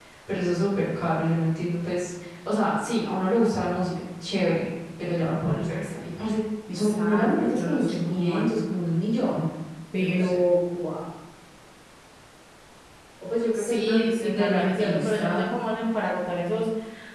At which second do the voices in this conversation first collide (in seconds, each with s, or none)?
6.7 s